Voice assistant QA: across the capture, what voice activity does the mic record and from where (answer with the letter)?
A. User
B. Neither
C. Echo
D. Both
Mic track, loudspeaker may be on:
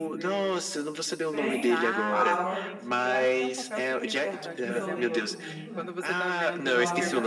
D